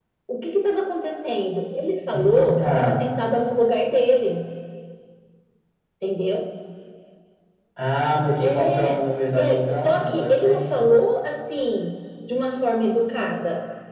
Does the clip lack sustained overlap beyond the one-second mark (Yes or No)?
No